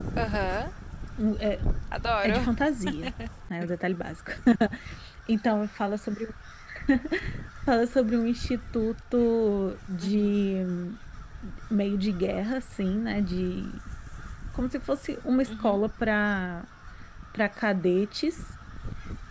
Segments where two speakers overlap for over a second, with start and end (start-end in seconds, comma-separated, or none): none